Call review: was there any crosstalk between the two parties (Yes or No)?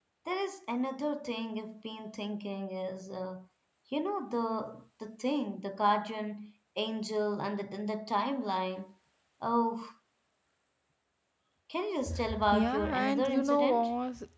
Yes